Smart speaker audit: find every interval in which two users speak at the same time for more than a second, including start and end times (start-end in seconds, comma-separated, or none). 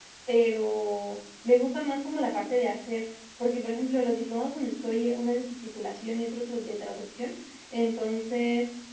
none